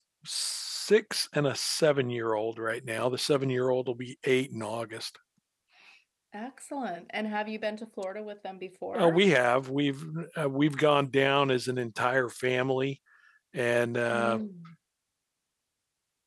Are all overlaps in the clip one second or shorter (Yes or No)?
Yes